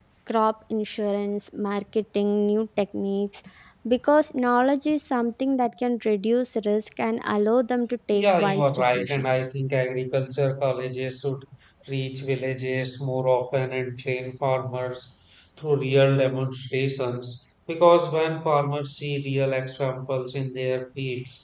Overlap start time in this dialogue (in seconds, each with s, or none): 8.1 s